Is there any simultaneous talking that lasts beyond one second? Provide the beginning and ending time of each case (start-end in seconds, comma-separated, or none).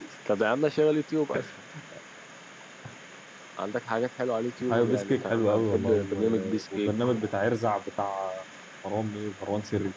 4.7-7.3